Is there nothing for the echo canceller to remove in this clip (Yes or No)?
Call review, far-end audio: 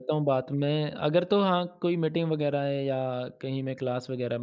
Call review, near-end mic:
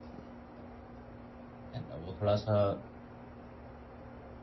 Yes